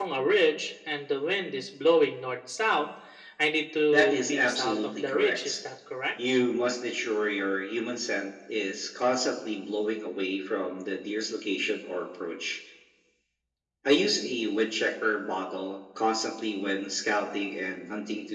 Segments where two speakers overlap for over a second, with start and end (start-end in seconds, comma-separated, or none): 3.9-5.6